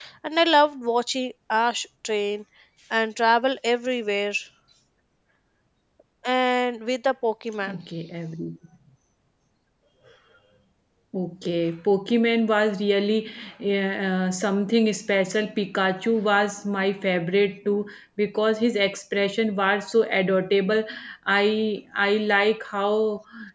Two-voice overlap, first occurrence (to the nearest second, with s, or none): none